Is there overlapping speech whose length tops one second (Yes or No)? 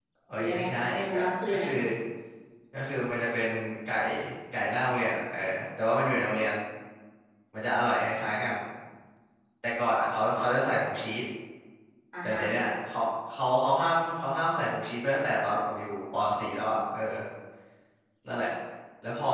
Yes